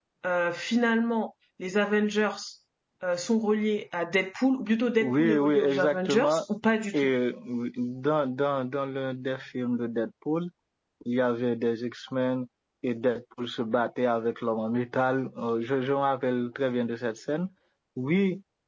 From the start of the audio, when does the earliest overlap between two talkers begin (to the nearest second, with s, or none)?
5 s